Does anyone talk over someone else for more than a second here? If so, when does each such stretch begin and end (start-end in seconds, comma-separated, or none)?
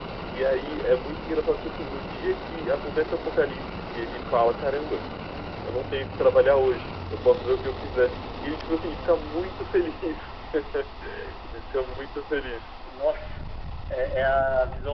none